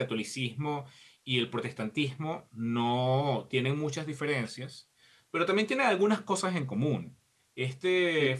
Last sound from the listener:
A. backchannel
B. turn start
A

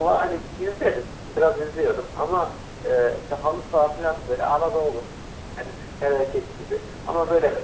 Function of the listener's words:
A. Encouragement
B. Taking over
A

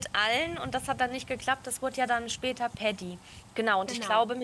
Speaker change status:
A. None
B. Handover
A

